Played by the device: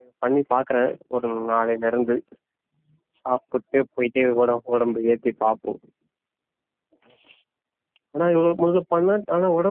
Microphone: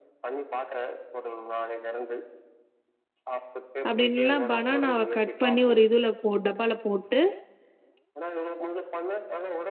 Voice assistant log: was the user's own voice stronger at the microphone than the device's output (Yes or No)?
Yes